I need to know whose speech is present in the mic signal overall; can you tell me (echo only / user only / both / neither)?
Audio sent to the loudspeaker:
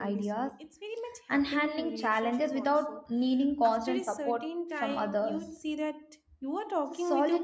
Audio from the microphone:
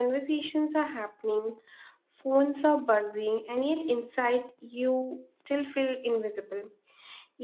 user only